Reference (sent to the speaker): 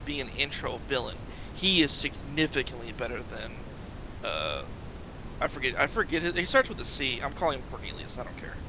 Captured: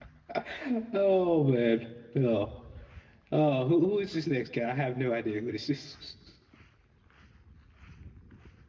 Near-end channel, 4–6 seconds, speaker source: user only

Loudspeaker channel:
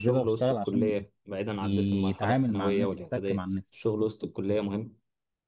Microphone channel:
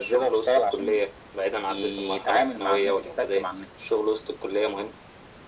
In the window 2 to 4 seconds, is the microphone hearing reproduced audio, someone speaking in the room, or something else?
echo only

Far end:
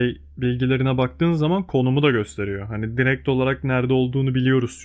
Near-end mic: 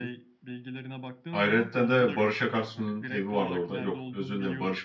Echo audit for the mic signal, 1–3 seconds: both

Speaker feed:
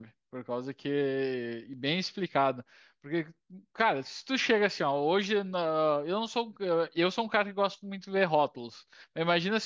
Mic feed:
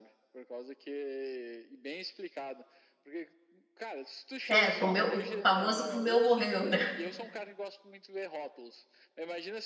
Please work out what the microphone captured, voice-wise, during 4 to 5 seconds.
both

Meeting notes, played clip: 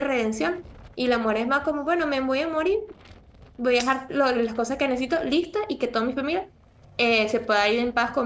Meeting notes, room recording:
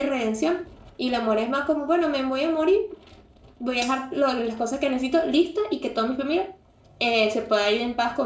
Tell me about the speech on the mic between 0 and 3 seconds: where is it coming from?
echo only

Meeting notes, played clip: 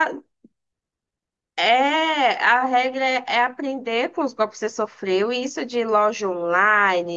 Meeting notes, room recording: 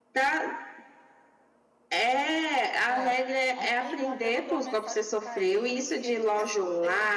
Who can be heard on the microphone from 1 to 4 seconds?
both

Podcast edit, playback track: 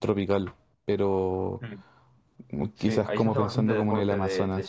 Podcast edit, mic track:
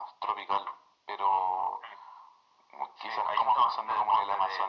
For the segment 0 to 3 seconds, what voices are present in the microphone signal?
echo only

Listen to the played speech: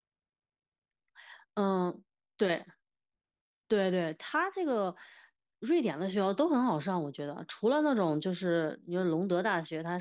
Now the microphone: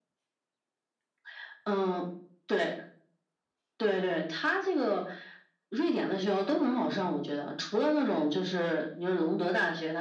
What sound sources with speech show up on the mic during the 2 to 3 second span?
echo only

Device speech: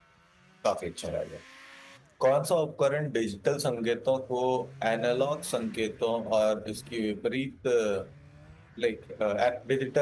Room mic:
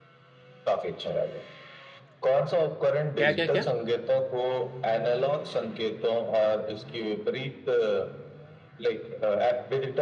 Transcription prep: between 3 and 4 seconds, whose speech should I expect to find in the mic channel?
both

